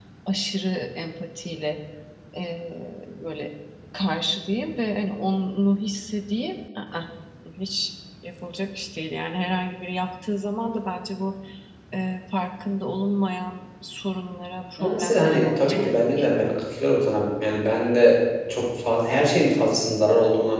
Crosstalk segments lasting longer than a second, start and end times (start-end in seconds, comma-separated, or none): 14.8-16.5